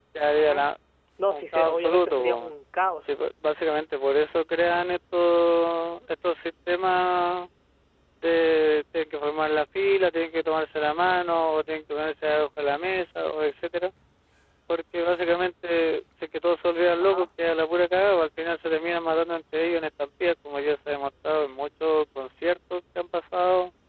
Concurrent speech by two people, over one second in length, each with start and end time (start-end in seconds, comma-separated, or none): 1.3-2.5